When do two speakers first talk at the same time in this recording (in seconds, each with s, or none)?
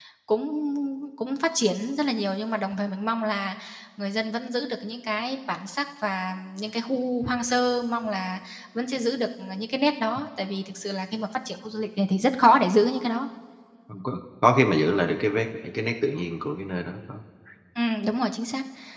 none